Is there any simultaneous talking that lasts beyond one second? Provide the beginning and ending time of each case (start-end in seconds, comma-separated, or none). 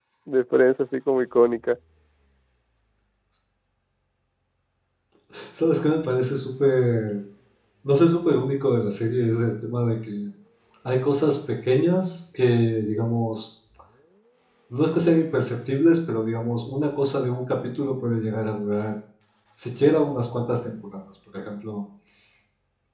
none